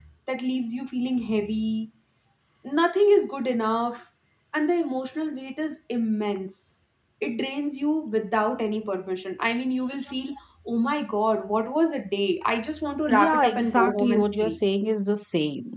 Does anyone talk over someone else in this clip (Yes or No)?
Yes